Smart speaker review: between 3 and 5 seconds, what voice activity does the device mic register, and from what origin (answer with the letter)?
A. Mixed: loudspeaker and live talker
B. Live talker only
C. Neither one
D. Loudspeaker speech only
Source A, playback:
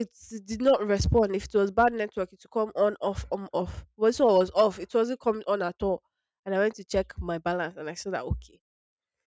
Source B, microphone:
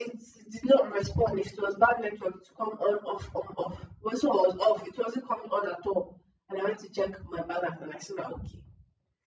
D